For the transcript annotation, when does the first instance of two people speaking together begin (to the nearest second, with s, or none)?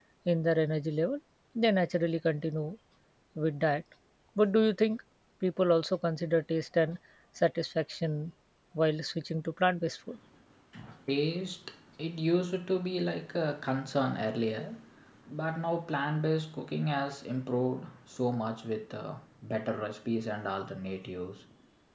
none